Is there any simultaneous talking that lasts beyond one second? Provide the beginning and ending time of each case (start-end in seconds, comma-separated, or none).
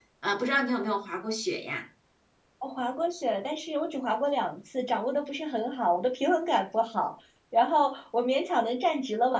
none